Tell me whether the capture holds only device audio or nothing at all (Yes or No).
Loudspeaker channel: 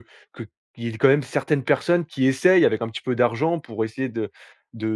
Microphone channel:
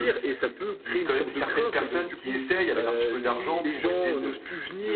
No